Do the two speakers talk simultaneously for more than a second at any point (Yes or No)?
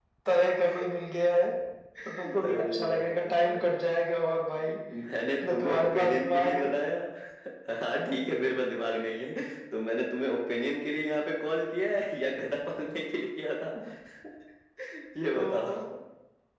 Yes